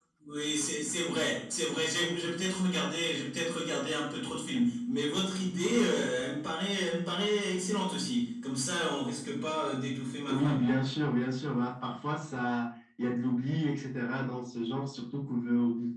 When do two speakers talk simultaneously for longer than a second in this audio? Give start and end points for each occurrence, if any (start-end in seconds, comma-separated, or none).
none